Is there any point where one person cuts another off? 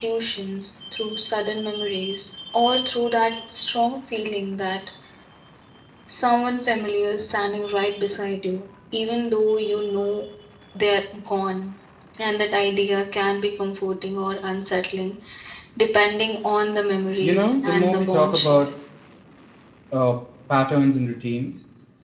Yes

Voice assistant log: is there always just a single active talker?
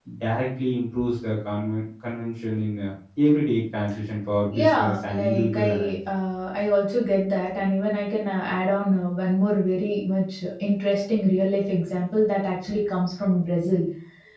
No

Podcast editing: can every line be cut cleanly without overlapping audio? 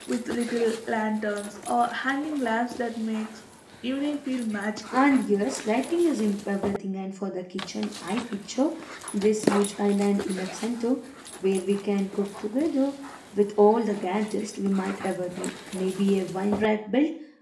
Yes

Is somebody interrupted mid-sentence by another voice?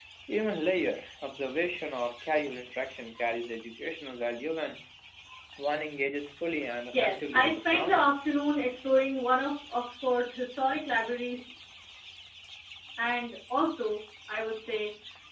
Yes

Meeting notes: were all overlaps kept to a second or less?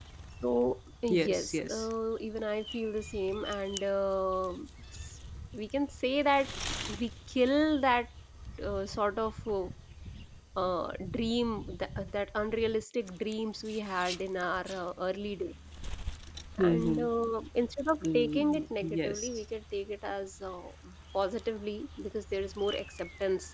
No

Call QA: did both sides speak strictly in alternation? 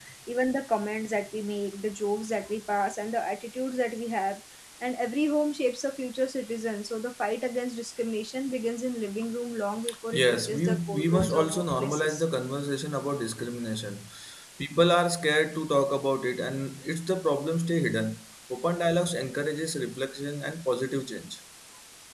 No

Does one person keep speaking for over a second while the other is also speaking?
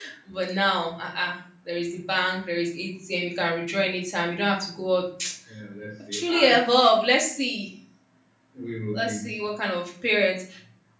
No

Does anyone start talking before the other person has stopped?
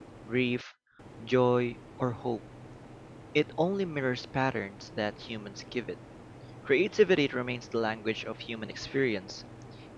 No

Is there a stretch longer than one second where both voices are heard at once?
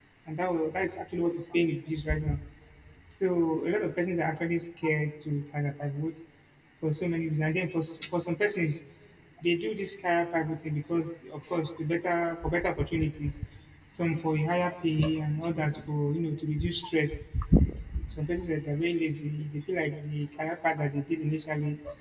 No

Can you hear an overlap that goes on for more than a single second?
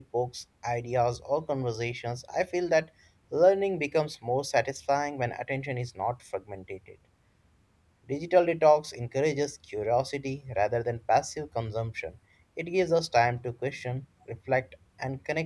No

